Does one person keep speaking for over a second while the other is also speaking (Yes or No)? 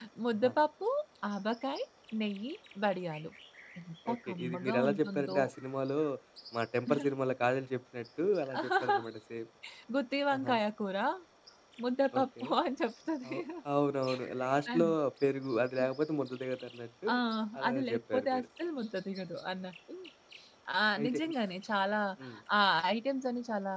Yes